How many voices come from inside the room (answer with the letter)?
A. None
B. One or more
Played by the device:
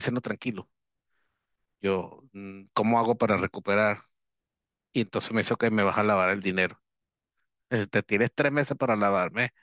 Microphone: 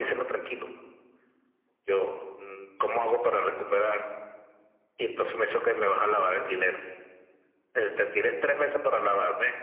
A